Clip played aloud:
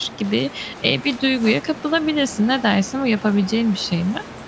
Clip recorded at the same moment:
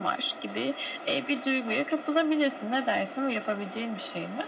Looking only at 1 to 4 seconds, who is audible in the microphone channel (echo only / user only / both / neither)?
echo only